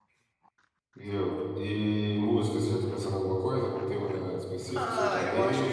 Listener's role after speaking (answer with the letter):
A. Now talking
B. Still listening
A